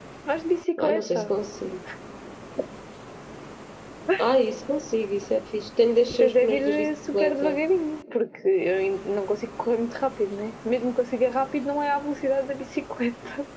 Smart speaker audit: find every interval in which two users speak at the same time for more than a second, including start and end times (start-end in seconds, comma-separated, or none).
6.2-7.6